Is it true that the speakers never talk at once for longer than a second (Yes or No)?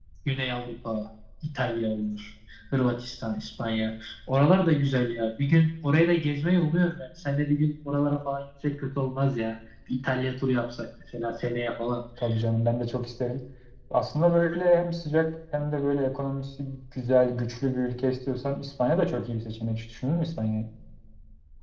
Yes